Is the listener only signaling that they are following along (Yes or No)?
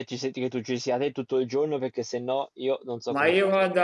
No